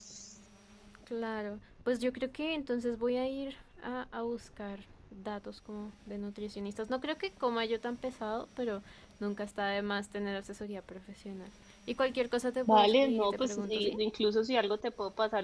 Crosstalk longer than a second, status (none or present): present